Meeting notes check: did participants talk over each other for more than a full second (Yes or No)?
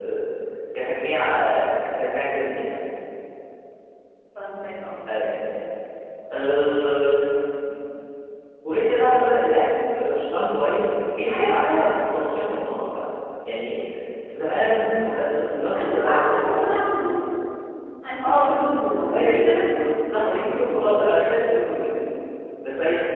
Yes